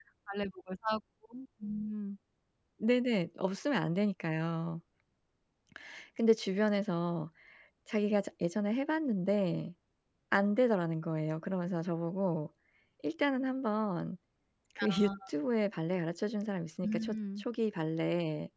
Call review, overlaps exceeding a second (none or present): none